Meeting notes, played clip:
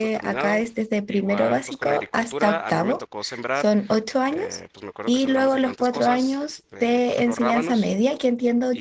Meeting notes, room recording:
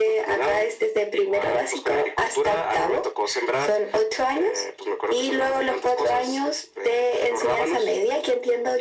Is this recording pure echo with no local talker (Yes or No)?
Yes